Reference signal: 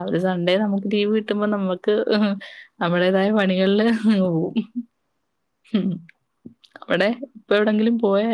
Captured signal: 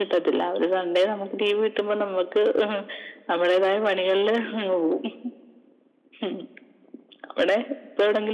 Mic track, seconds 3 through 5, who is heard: echo only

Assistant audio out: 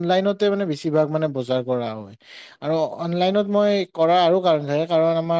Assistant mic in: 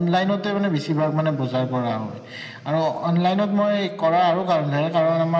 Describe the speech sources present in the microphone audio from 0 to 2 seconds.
echo only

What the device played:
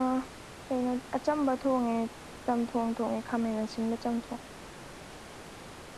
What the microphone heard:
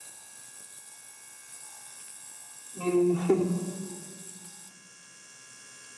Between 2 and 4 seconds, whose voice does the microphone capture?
user only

